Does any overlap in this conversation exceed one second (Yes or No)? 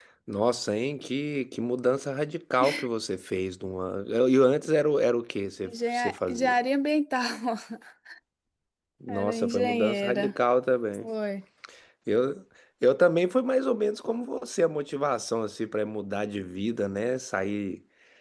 Yes